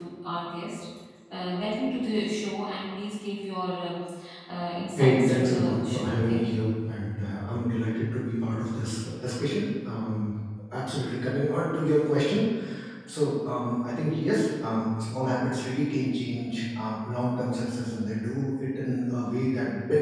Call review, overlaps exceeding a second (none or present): present